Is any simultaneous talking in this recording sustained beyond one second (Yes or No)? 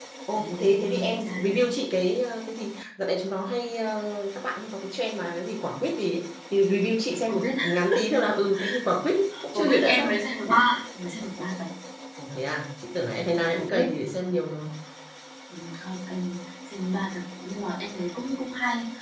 Yes